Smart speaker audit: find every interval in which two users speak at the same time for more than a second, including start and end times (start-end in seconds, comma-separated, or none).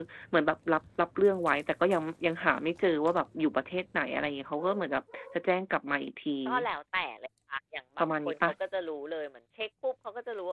none